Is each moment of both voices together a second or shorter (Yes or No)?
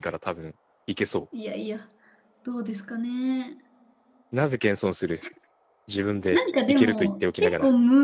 No